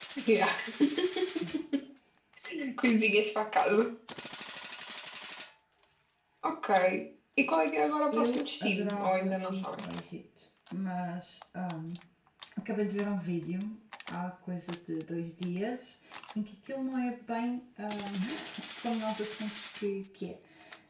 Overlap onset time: 8.1 s

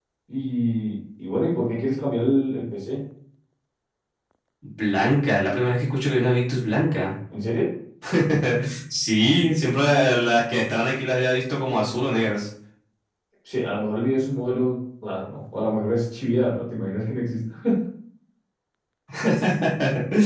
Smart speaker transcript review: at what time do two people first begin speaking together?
none

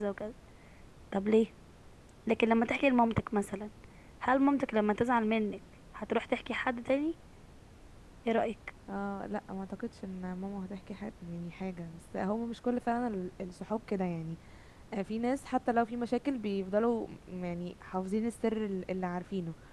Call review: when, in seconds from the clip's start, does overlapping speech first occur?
none

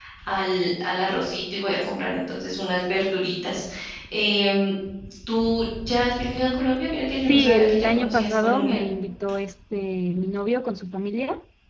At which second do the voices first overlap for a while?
7.3 s

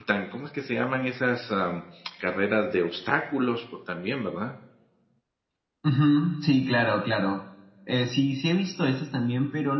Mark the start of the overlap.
none

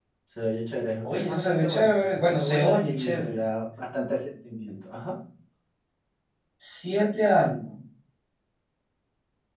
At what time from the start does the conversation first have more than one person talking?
1.0 s

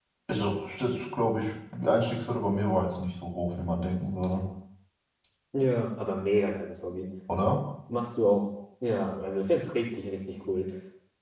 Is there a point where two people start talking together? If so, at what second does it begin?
none

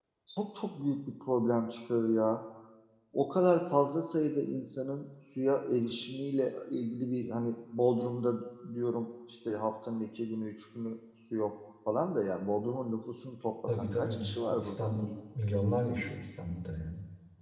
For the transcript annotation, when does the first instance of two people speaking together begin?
13.7 s

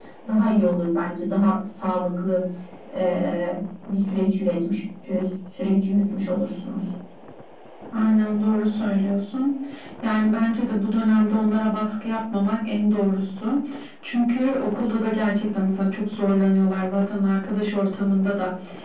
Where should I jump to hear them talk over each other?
none

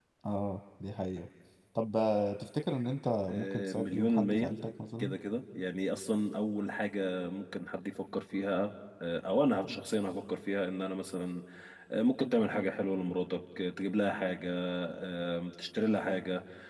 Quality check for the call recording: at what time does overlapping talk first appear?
3.3 s

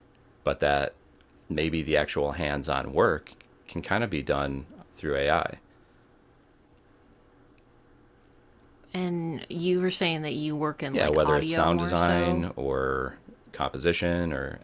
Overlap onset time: 10.9 s

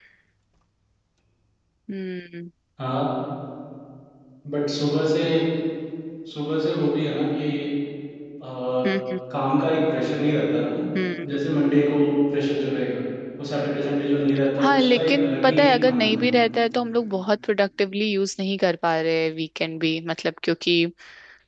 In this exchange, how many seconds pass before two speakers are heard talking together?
14.6 s

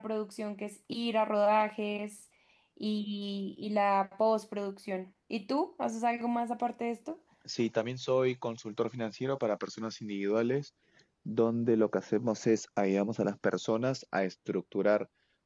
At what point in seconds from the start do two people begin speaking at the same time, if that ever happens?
none

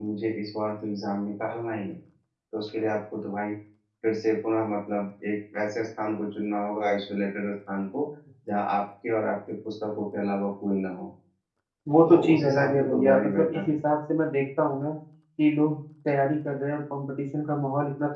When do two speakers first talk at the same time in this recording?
12.1 s

